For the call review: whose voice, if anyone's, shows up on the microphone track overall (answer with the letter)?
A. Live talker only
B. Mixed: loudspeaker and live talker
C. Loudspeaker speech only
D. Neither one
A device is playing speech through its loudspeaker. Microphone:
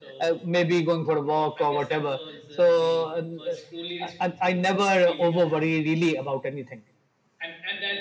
B